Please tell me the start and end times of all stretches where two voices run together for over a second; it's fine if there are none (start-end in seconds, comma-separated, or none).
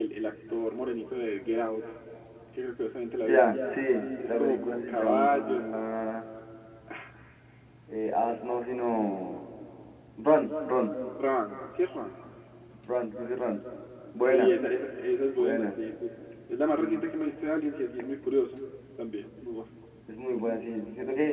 4.2-5.7